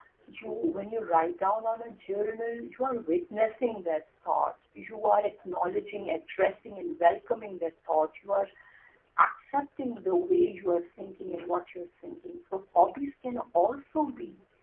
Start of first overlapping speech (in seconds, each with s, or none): none